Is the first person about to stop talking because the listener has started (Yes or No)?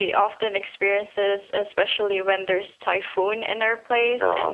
No